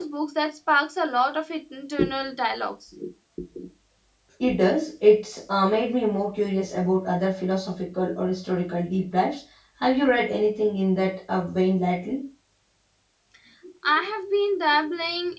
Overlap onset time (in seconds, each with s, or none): none